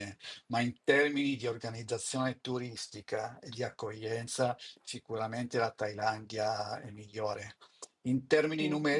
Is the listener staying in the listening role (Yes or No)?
Yes